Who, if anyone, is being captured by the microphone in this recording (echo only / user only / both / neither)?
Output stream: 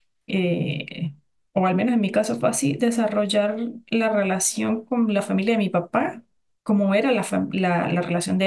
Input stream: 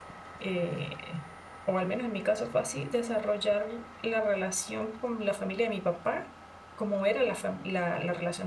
echo only